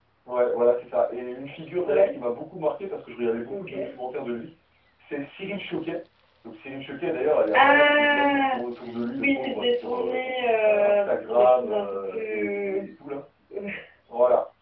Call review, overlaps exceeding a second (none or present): present